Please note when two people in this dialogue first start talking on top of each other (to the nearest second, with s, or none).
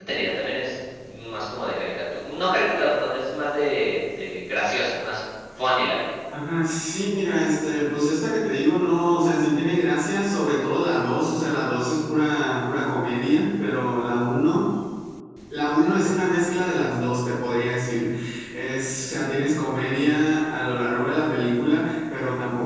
none